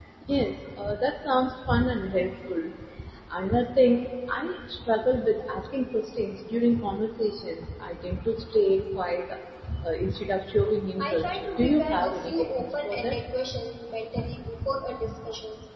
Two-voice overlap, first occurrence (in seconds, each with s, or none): 11.0 s